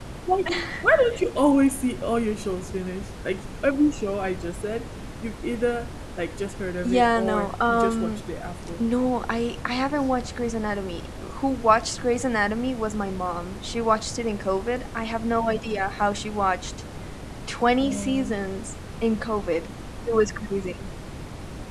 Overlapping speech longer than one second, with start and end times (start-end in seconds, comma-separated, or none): 6.8-8.2